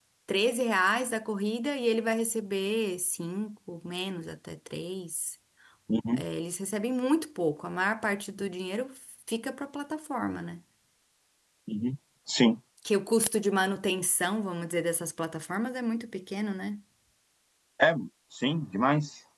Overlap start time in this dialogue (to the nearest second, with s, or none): none